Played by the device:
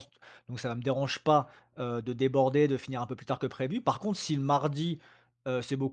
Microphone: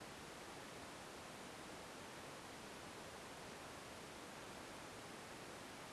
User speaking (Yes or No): No